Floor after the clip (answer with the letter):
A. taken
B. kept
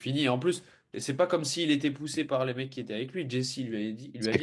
A